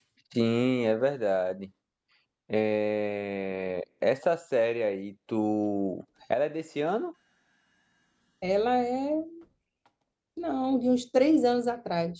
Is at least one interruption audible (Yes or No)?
No